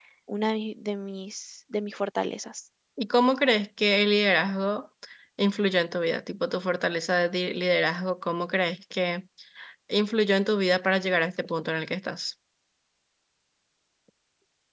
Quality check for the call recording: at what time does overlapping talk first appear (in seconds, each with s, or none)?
none